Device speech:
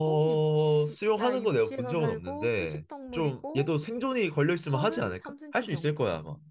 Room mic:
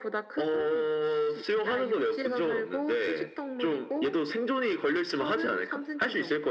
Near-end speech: none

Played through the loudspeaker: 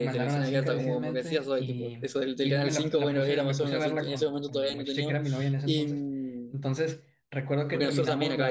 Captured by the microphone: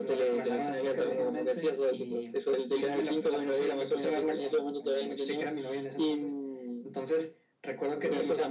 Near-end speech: none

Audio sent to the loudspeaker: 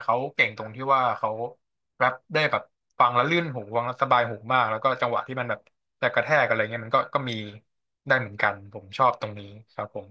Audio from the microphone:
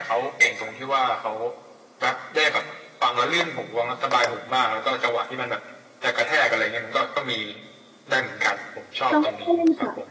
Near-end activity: present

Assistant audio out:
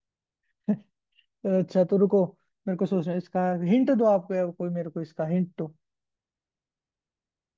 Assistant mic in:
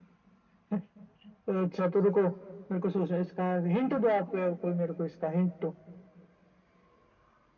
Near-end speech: none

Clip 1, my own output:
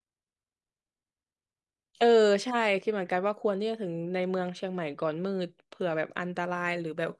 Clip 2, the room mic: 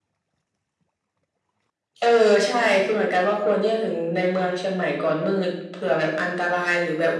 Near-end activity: none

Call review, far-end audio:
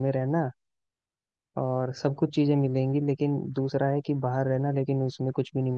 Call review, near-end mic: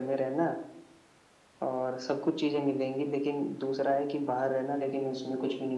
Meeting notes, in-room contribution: none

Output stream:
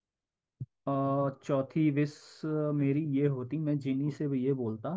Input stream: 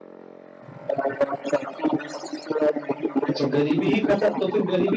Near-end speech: present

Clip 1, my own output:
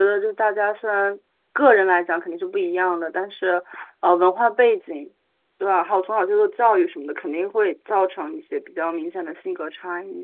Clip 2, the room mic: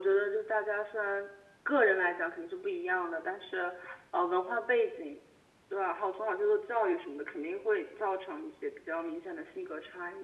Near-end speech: none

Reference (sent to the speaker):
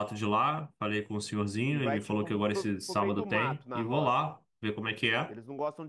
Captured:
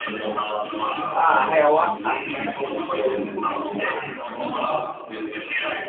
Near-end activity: present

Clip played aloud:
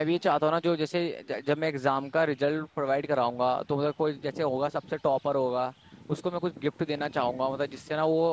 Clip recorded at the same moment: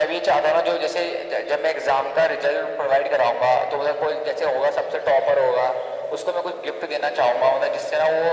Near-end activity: none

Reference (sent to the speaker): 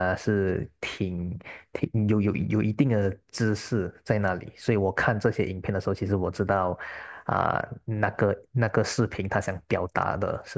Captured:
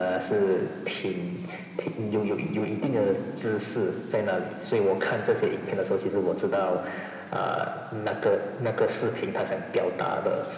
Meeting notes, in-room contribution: none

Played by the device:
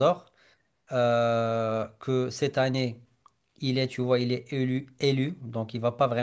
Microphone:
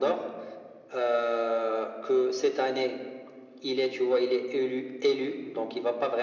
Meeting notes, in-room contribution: none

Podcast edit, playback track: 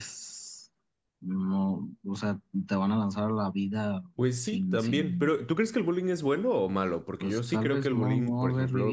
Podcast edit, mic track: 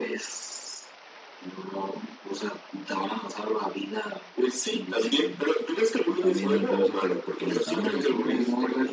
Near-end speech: present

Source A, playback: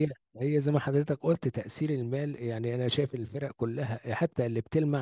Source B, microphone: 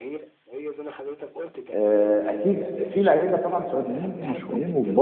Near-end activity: present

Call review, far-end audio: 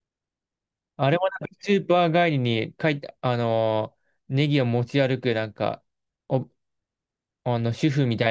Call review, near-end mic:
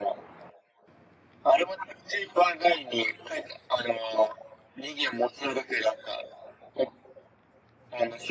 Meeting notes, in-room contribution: none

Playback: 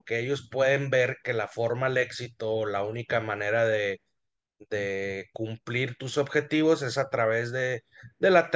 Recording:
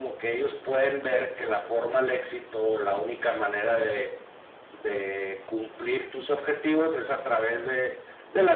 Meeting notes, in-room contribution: none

